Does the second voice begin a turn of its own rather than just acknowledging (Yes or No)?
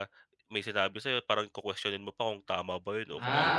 Yes